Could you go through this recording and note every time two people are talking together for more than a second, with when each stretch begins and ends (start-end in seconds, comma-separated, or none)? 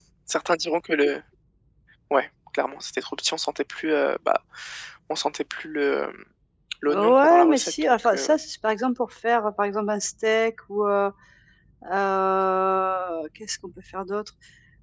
6.9-8.3